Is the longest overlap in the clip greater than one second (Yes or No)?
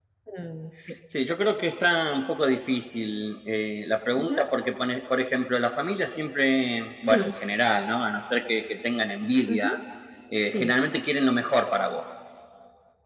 No